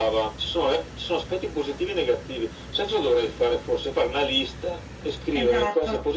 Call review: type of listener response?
taking over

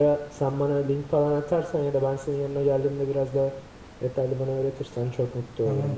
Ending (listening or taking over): taking over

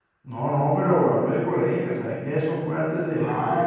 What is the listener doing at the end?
taking over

